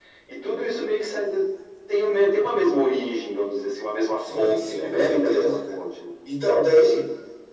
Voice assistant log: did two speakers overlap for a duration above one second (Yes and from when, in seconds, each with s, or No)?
Yes, from 4.3 s